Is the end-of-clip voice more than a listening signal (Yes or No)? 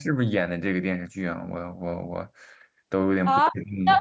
Yes